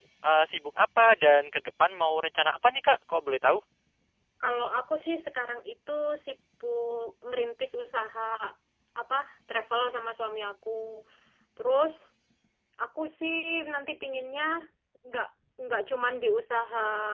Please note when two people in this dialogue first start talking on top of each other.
none

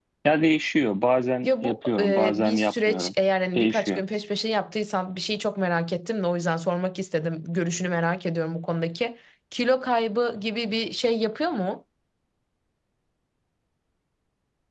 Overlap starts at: 1.4 s

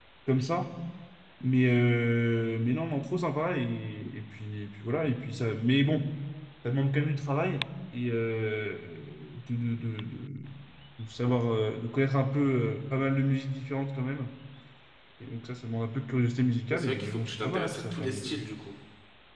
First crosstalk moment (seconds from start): 16.7 s

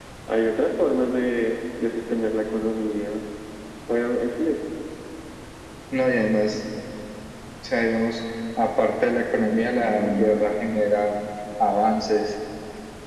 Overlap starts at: none

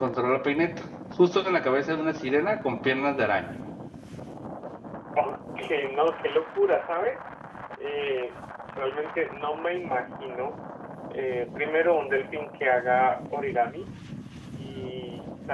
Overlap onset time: none

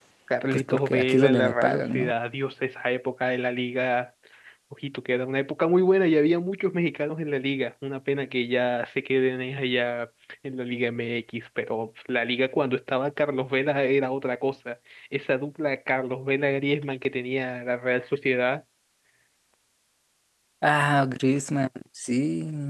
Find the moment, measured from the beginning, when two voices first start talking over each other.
0.5 s

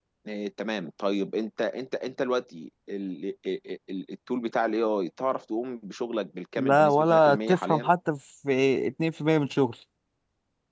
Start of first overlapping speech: 6.6 s

